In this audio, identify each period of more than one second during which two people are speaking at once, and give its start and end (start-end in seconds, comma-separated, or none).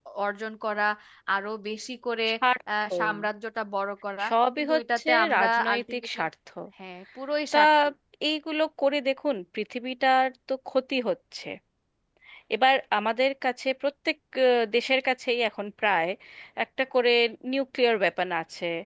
4.3-6.1